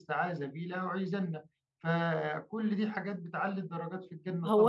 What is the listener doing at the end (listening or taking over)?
taking over